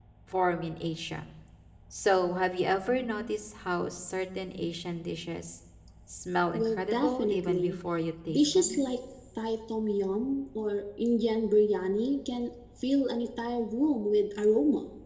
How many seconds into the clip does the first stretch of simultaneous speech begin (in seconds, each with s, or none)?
6.5 s